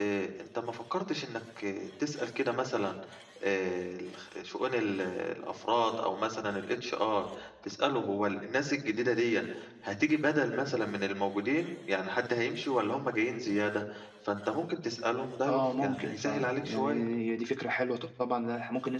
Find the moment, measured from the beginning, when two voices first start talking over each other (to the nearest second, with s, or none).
15 s